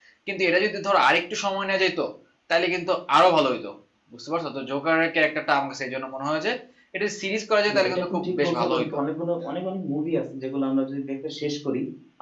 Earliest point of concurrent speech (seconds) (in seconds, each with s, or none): 7.7 s